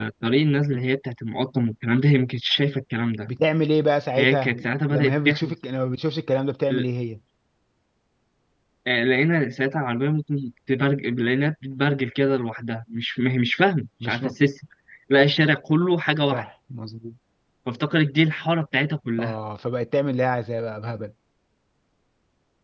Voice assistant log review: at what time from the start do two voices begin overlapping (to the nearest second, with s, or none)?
4 s